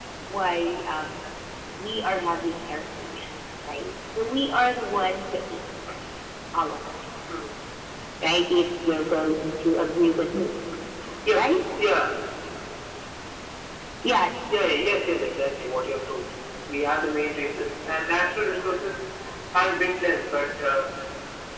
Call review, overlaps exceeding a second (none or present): none